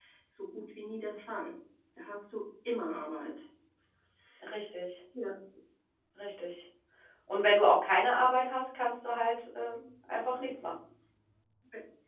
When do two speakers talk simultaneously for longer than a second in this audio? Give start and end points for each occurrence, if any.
none

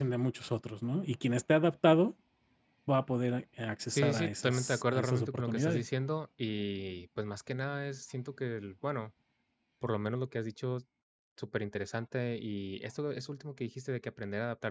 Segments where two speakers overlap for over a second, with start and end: 3.9-5.8

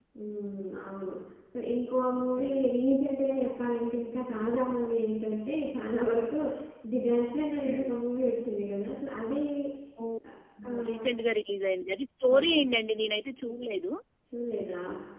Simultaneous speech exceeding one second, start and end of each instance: none

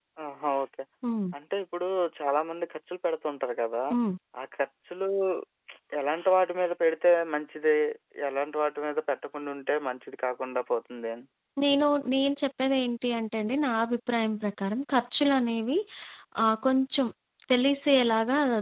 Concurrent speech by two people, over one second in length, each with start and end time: none

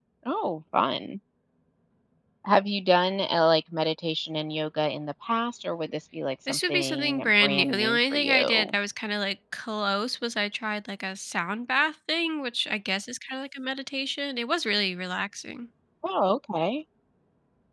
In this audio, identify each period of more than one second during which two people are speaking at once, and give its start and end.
6.5-8.8

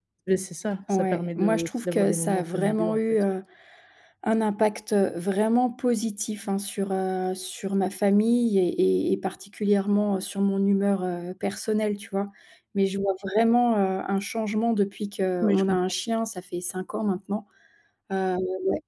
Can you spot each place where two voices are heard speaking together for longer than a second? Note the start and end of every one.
0.9-3.0

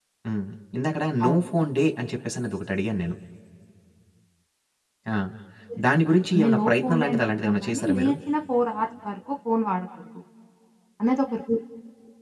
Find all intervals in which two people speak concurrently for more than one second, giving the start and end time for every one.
6.4-8.1

